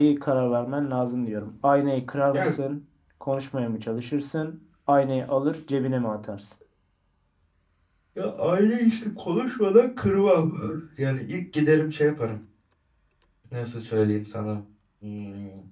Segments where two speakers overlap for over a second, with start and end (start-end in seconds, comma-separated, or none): none